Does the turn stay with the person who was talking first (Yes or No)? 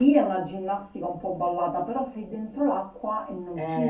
No